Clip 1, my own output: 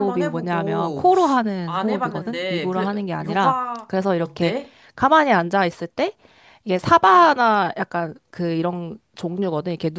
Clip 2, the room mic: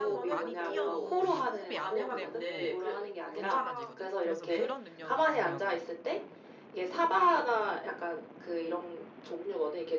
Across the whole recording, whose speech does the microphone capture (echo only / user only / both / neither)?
both